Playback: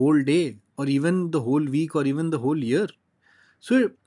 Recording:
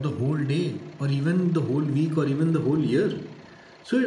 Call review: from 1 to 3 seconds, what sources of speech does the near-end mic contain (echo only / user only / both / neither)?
echo only